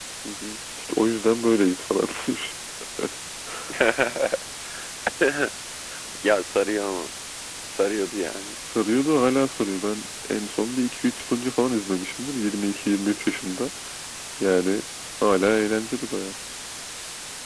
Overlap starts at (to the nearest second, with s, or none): none